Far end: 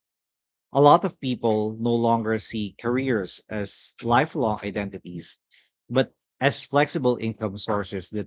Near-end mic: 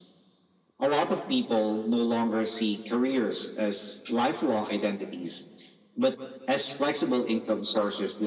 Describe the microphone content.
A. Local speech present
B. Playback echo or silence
B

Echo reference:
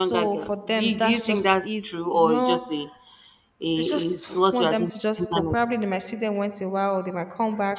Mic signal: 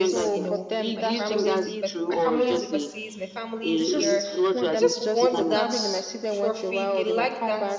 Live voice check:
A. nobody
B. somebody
B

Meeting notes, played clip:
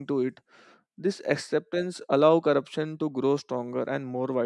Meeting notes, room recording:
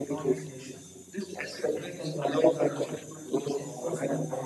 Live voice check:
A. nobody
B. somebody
B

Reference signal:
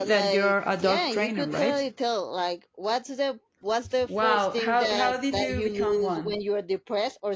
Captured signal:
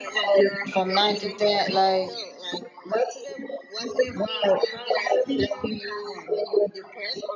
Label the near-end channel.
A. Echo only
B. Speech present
B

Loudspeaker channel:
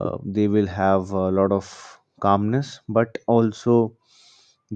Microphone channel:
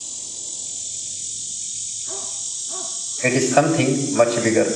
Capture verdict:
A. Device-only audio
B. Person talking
B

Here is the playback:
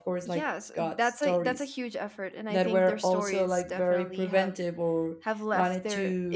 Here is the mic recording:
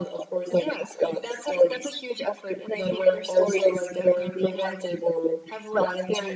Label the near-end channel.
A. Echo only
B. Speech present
A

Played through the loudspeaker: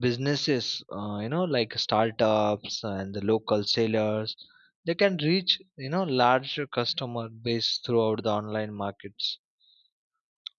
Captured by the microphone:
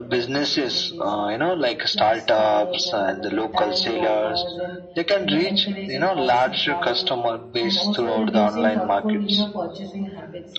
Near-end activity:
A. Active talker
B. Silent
A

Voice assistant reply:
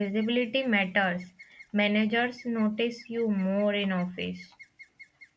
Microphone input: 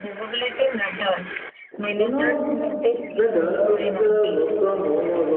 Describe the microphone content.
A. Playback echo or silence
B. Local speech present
B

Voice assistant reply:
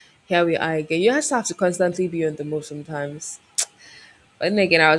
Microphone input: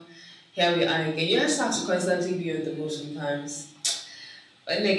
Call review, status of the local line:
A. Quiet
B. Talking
A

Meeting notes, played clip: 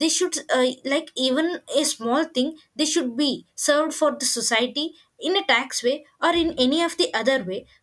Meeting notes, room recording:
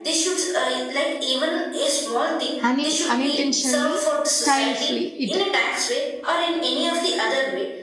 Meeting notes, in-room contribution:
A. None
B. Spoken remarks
B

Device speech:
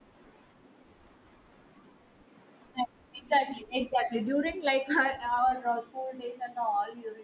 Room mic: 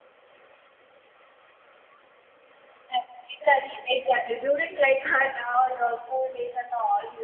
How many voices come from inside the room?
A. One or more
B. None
B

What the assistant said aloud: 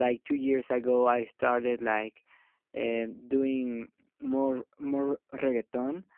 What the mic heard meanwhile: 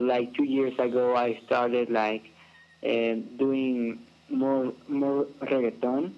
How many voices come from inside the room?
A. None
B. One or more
A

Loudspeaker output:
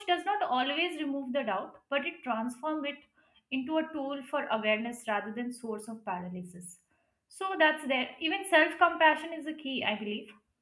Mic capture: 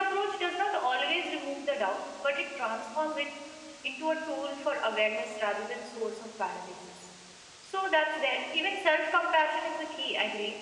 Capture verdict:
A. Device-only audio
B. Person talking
A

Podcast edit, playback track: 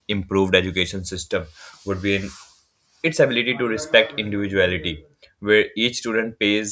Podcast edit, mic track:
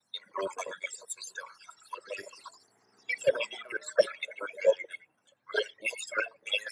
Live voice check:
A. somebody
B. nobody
B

